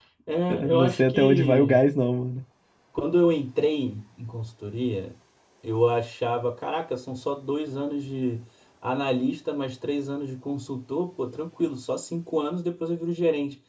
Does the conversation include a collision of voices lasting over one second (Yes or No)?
Yes